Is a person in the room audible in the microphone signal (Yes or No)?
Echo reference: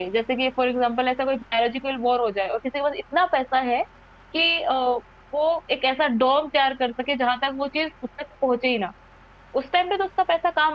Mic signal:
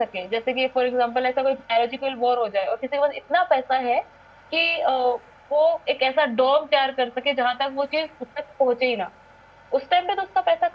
No